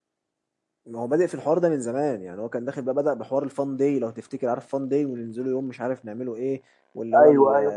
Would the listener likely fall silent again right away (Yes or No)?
Yes